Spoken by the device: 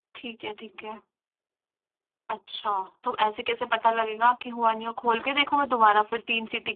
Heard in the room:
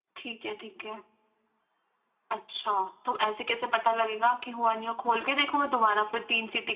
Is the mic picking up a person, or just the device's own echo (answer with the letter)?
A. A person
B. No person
B